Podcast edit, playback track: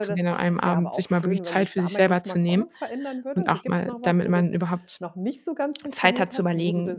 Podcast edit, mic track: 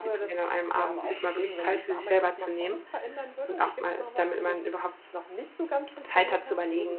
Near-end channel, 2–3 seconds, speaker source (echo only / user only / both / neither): echo only